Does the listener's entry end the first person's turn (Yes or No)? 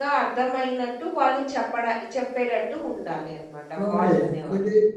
Yes